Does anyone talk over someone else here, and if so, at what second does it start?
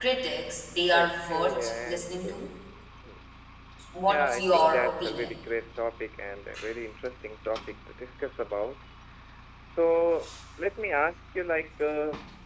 0.9 s

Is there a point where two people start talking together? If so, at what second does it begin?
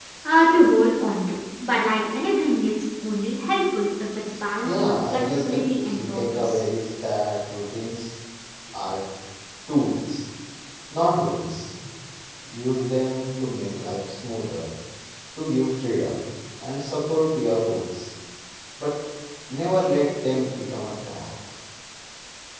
4.6 s

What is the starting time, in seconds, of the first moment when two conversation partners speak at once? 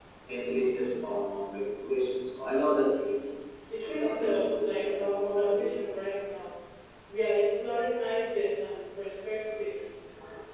3.8 s

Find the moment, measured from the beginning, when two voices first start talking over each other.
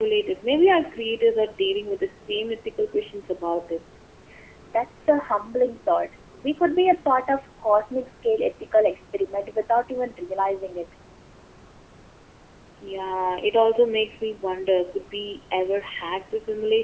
none

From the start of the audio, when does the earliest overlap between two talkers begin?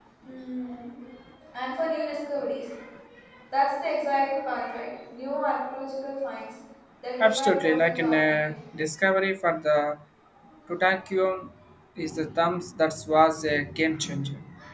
7.2 s

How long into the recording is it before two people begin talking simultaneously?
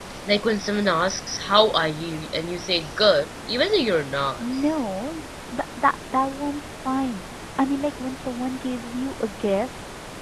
none

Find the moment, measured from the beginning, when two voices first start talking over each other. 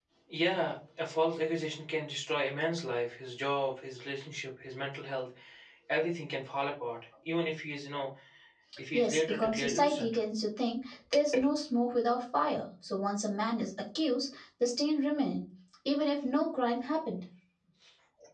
8.9 s

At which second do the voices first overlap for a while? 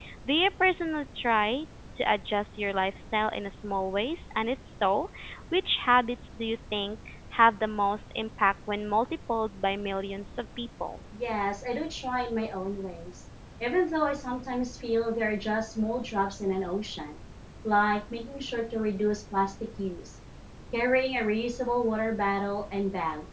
none

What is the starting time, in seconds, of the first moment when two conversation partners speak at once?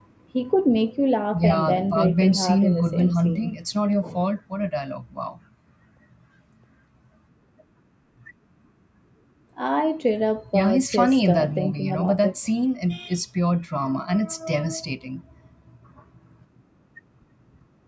1.3 s

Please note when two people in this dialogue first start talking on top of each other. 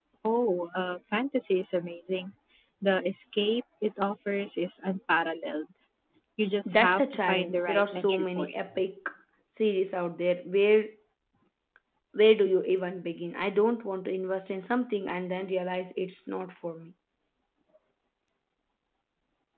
6.7 s

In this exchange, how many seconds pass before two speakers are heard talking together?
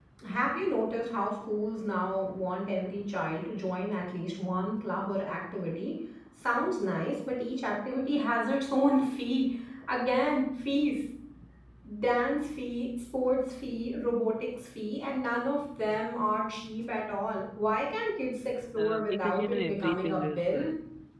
18.8 s

